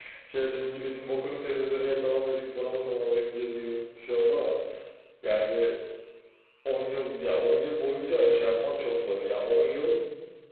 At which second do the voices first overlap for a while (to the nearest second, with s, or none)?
none